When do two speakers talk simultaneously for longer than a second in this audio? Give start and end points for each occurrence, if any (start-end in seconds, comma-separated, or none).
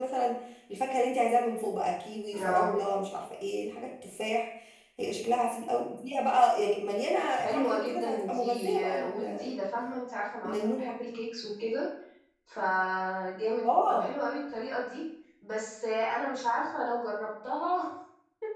7.4-9.5